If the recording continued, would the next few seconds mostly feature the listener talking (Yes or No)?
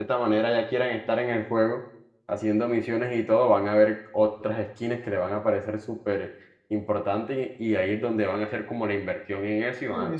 Yes